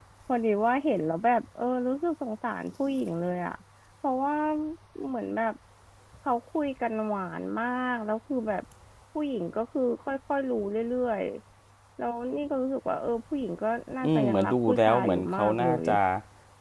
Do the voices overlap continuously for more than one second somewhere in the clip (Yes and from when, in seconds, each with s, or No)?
Yes, from 14.0 s